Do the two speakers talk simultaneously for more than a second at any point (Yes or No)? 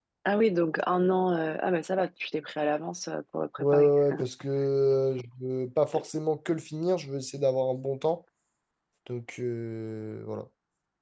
No